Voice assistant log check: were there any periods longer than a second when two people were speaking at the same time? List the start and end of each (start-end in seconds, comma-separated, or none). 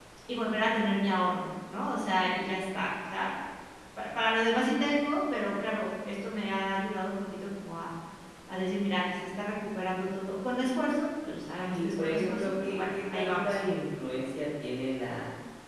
11.7-13.6